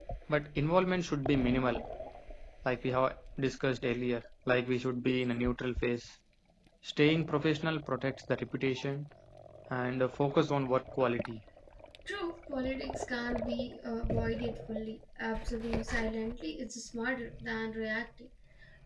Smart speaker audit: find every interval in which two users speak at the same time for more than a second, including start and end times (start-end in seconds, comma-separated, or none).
none